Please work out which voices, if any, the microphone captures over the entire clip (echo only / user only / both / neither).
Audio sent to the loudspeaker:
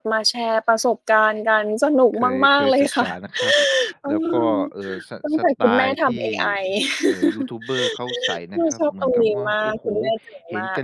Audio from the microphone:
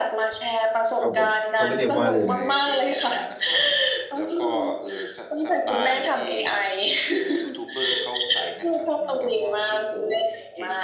both